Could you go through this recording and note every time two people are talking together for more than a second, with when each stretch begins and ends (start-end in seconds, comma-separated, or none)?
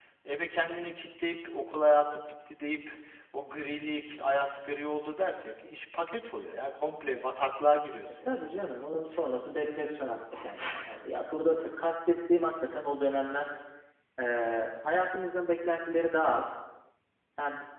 none